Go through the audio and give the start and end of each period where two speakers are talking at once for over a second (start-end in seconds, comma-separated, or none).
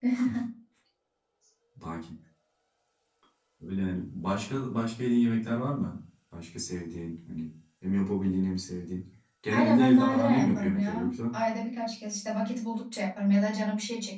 9.5-11.3